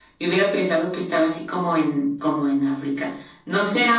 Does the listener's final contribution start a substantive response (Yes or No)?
No